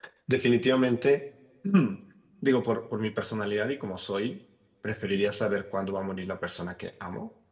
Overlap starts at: none

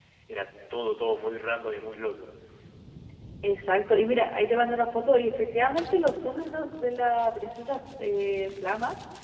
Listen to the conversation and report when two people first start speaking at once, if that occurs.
none

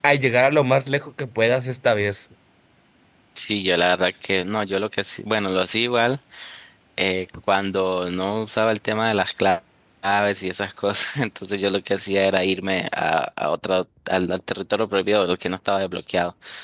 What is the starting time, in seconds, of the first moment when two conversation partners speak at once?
none

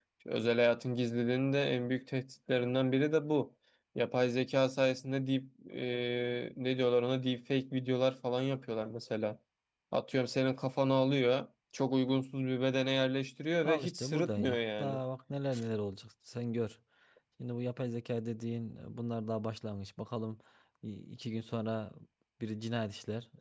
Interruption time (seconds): 13.6 s

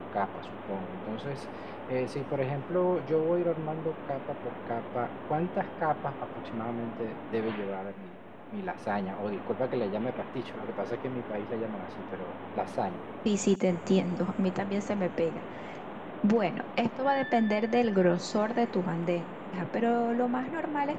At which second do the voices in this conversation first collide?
none

